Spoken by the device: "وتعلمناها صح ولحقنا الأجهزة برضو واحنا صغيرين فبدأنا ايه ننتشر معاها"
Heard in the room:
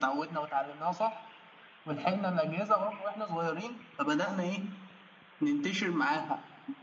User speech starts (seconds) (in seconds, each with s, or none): none